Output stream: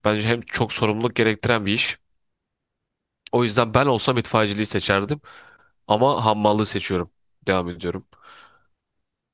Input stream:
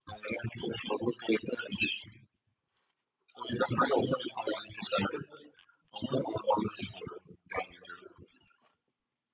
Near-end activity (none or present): none